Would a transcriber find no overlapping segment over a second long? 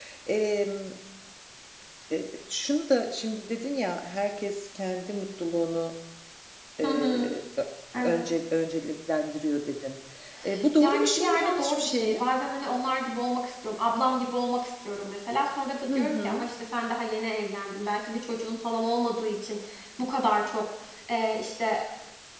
No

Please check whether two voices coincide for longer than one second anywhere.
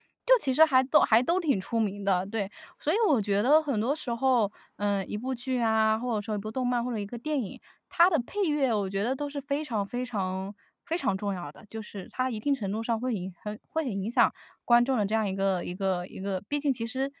No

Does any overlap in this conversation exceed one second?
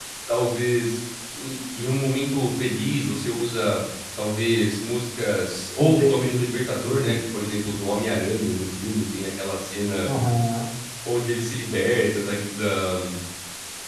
No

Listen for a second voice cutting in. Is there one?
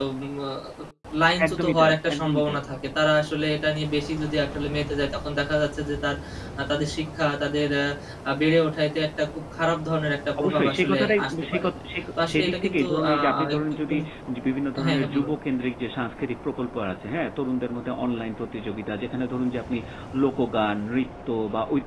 Yes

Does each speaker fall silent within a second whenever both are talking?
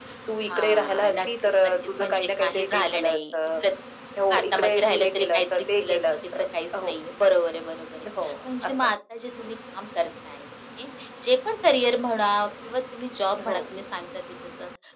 No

